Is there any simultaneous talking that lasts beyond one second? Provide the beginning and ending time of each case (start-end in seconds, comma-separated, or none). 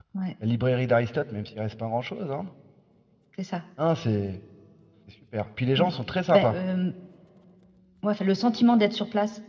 none